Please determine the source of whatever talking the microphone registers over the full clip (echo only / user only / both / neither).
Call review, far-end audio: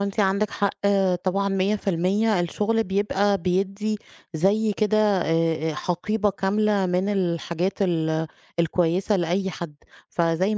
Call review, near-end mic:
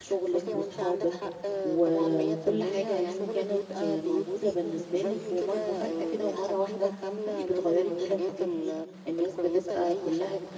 both